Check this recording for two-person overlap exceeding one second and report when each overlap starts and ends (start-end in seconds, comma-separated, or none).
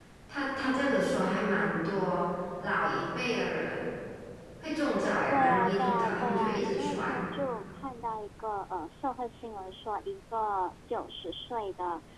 5.3-7.2